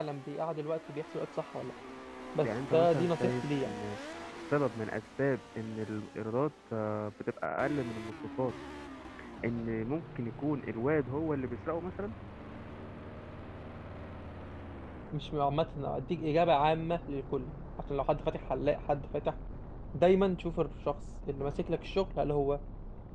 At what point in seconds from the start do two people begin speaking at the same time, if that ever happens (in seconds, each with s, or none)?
2.4 s